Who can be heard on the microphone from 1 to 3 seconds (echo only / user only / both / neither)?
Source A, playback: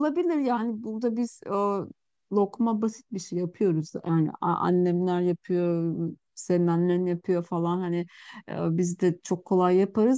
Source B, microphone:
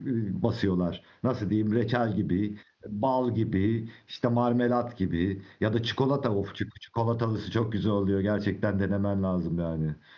user only